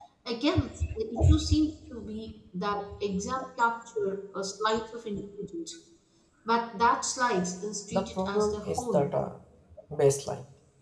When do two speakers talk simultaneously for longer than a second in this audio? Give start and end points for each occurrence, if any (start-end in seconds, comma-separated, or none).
7.9-9.1